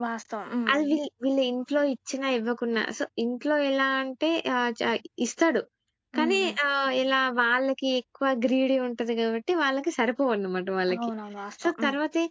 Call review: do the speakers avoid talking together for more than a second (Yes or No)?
Yes